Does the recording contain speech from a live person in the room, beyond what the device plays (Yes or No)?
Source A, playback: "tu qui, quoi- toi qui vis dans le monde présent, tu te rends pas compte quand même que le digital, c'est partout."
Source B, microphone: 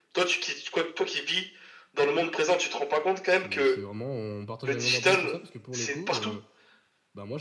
Yes